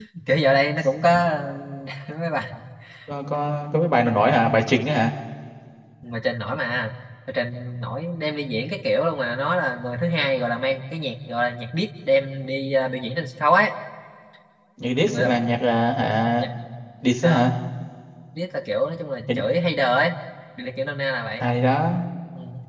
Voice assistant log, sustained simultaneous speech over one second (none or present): none